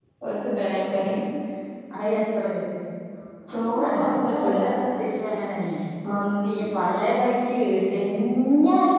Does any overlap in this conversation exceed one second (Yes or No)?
Yes